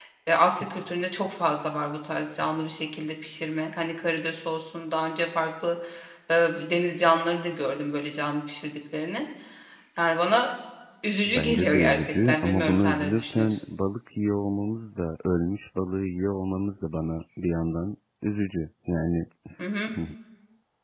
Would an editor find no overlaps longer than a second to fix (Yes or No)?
No